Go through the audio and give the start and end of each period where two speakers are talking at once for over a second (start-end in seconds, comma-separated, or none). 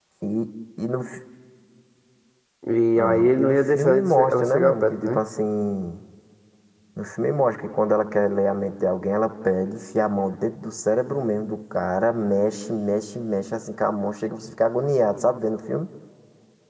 3.0-5.2